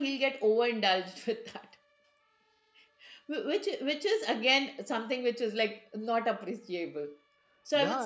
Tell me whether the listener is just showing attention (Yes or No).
No